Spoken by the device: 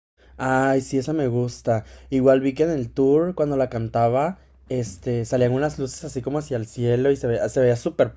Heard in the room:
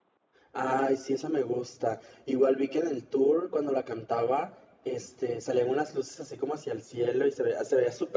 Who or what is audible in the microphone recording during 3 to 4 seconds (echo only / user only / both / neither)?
echo only